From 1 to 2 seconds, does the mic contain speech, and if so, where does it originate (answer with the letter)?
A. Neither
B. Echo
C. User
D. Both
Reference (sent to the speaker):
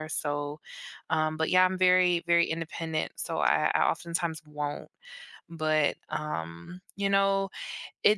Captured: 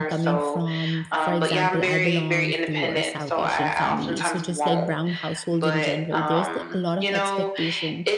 D